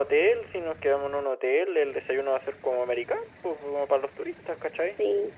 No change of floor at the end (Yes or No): Yes